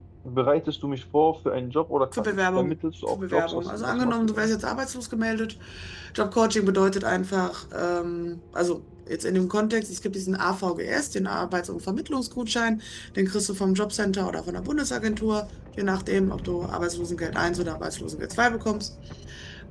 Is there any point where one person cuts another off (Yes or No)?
Yes